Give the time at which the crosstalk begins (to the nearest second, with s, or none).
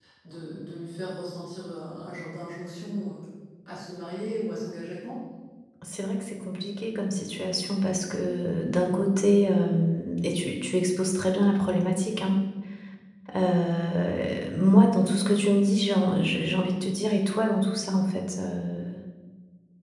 none